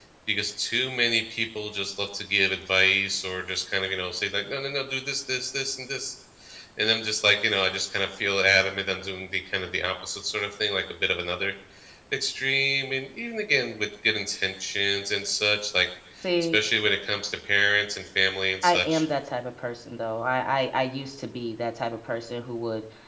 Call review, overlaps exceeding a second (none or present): none